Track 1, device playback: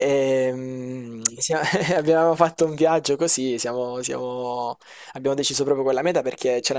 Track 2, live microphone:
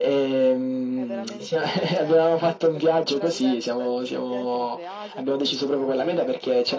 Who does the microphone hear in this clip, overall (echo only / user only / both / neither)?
both